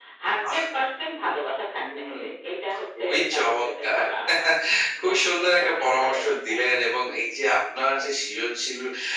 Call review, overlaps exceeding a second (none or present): present